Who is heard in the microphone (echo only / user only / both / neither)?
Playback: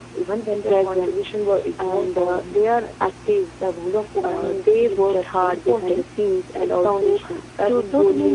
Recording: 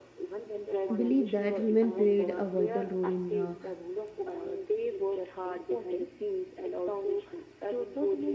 both